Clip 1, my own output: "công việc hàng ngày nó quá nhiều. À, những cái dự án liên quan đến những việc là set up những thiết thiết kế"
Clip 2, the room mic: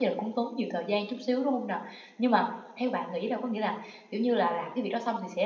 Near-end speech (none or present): present